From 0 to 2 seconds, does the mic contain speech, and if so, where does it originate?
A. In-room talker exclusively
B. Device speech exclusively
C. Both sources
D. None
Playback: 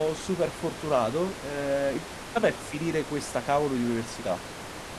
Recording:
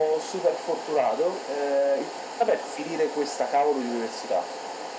B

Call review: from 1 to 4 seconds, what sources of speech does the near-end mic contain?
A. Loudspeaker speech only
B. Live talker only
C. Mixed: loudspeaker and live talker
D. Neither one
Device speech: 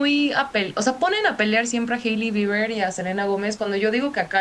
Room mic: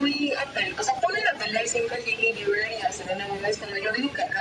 A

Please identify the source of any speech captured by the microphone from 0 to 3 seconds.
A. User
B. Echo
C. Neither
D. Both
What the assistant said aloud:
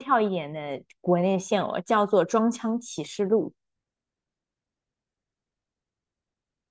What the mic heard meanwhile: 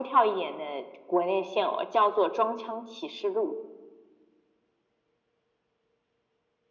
B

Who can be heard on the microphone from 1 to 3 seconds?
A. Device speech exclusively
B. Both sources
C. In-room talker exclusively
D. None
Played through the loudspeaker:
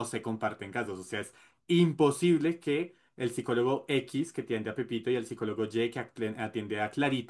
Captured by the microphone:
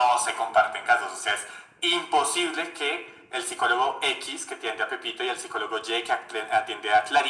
A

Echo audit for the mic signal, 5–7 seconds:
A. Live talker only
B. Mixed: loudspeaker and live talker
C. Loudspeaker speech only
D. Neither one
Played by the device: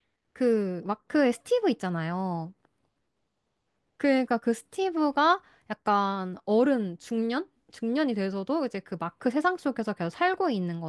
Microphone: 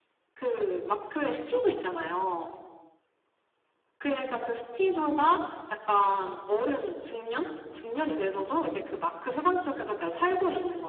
C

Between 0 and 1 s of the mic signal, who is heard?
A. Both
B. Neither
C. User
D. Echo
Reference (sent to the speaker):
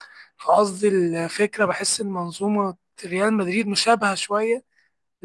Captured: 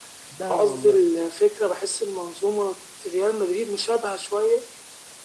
A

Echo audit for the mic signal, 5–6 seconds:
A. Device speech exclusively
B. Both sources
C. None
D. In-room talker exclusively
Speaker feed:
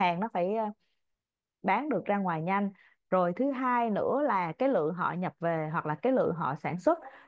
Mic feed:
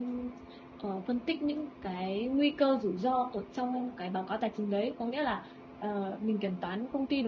D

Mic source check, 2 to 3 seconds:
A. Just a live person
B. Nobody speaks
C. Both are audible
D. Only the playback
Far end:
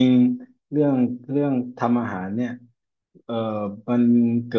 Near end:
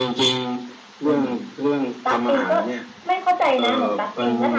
C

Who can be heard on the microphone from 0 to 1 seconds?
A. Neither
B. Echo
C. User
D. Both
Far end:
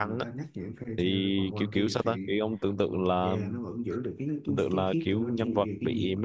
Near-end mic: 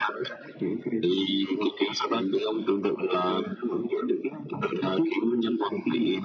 B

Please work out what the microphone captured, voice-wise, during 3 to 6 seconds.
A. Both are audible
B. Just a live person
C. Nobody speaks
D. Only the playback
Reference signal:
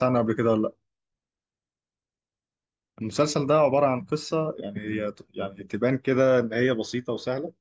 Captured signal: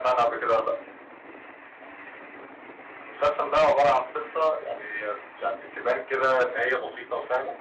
D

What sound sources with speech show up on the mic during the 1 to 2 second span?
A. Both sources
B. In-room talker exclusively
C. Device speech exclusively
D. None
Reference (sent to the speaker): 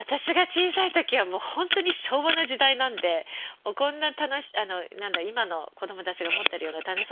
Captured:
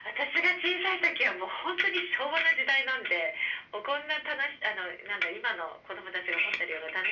C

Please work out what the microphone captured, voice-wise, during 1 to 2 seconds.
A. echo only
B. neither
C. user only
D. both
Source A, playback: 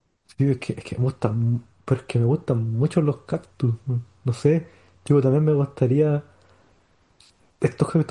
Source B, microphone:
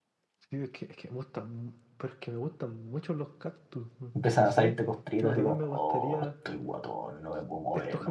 A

